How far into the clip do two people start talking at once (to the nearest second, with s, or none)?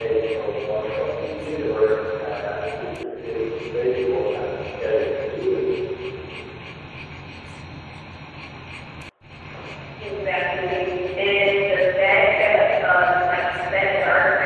none